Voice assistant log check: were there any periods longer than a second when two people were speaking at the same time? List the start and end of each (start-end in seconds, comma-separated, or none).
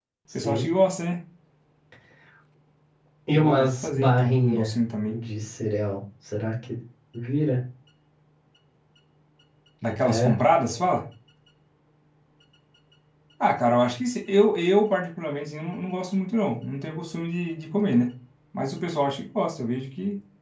3.3-4.7